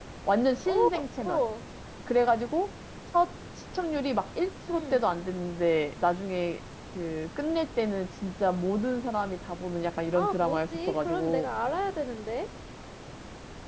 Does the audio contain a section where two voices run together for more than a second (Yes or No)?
Yes